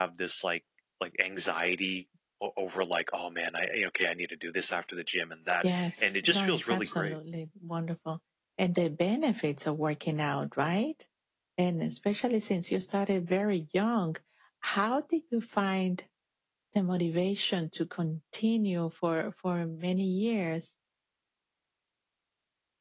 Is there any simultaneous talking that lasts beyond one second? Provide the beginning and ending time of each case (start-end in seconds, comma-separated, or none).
5.6-7.2